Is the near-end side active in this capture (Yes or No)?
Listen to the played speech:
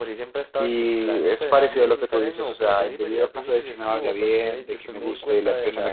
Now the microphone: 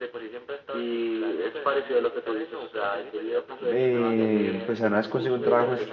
Yes